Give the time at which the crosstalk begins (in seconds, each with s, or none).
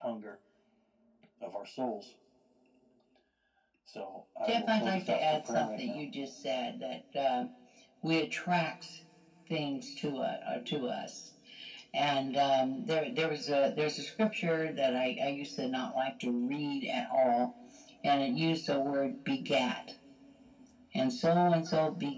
4.4 s